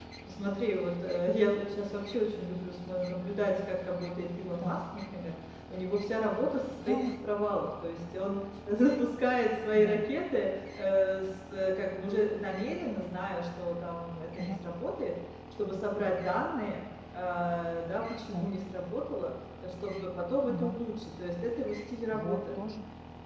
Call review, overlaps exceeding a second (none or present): none